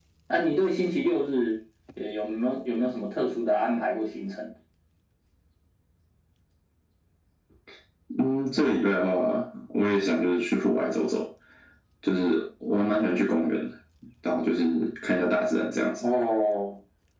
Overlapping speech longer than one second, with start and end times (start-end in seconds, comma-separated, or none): none